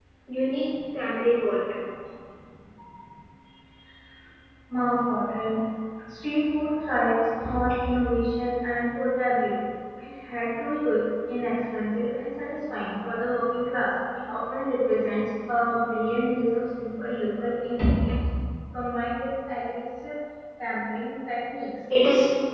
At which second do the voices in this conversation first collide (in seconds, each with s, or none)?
none